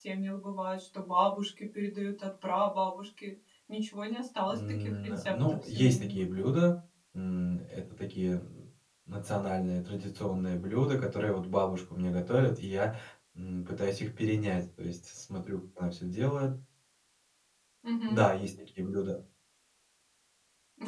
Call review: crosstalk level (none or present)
present